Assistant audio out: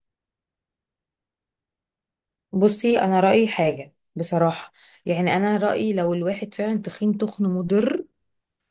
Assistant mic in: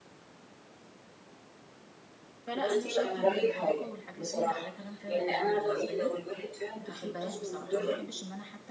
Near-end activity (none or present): present